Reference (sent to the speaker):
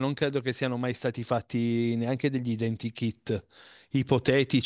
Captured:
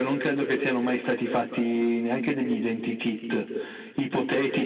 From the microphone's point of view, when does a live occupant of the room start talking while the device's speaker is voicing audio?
none

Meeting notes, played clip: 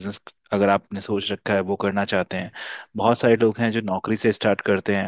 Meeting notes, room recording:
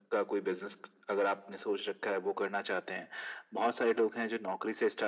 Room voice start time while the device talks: none

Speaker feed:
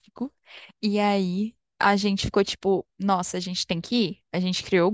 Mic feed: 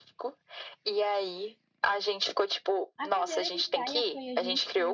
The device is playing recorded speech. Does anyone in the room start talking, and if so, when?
3.0 s

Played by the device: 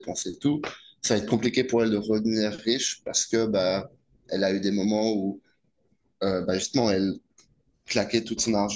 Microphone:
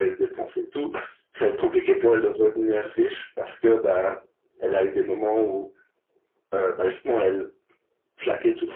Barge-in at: none

